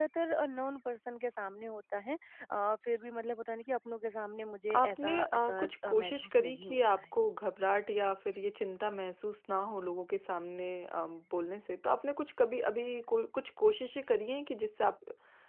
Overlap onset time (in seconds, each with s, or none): 4.7 s